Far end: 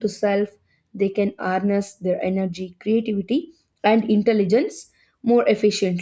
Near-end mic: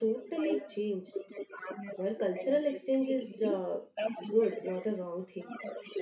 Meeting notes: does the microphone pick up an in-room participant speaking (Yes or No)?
Yes